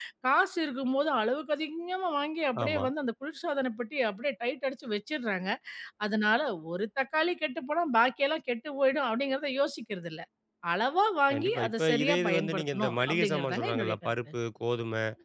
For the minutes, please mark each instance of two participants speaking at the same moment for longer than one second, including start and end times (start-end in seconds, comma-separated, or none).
11.3-14.1